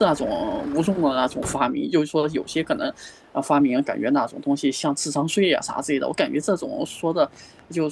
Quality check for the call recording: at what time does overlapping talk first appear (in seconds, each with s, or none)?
none